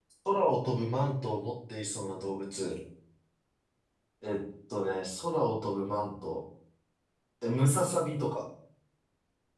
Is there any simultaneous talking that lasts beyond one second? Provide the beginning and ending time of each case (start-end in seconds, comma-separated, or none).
none